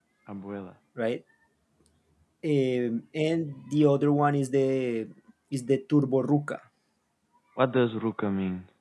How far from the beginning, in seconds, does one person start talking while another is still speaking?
none

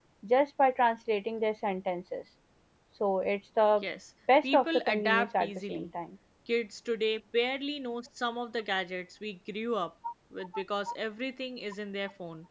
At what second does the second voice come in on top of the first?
5 s

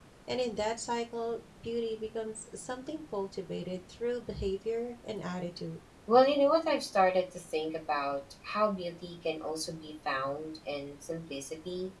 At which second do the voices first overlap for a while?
none

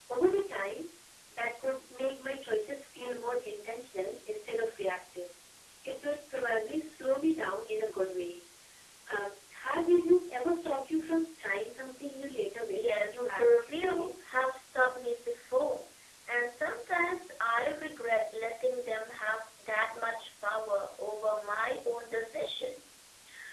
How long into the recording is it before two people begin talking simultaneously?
13 s

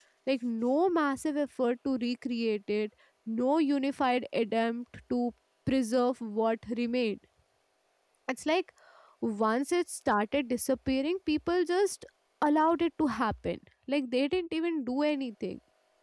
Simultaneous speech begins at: none

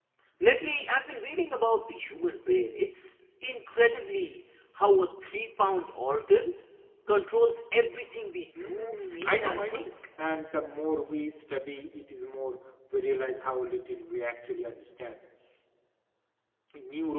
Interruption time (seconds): 9 s

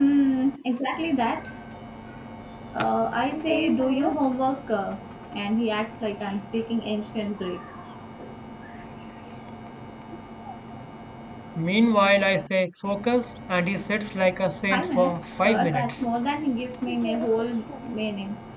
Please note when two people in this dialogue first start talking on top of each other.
15 s

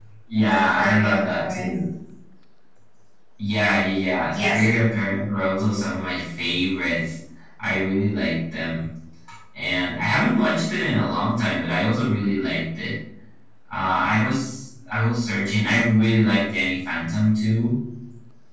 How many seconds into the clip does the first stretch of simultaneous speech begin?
1 s

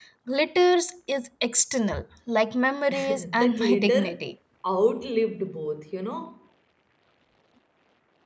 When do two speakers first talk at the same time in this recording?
3 s

